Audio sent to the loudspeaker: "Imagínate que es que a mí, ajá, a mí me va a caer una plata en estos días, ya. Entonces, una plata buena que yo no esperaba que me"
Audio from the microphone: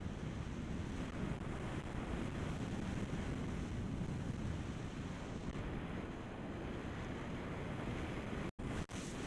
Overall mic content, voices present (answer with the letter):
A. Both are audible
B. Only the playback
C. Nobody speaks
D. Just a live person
C